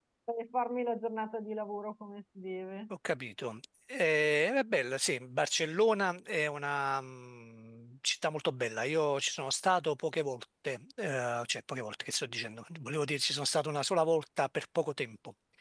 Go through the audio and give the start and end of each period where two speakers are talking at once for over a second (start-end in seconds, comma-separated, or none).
none